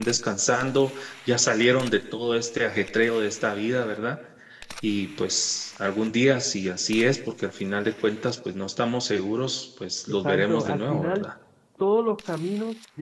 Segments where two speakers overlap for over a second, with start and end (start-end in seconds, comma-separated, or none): 10.1-11.3